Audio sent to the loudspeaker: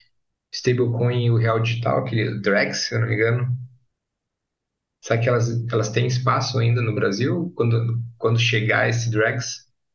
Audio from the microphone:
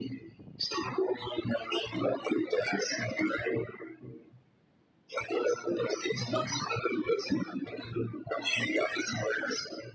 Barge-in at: none

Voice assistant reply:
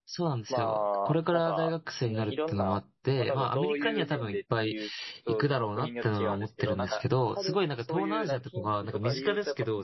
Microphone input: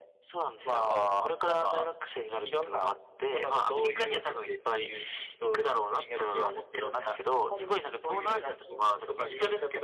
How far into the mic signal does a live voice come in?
0.8 s

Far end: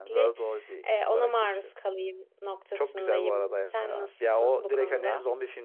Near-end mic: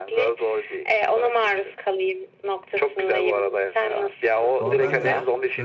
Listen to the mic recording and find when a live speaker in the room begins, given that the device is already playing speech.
4.6 s

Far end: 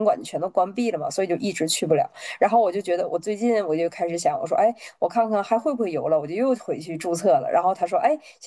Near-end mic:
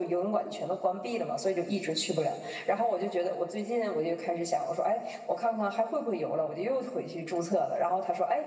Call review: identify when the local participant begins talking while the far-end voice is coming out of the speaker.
none

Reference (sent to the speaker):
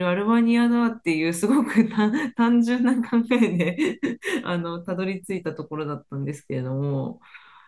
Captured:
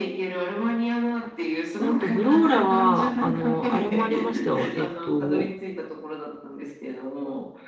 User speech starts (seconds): 1.8 s

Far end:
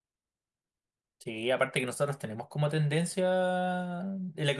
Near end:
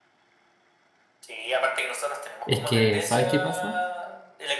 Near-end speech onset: 2.4 s

